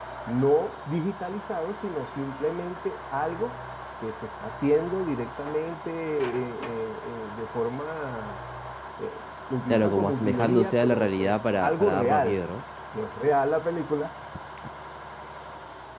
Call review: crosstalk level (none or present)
present